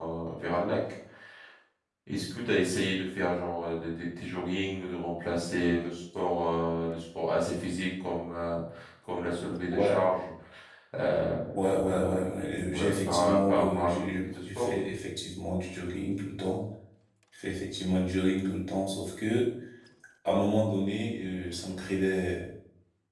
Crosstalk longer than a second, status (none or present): present